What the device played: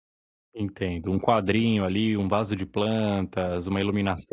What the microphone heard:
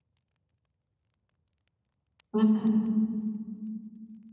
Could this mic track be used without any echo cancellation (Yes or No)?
Yes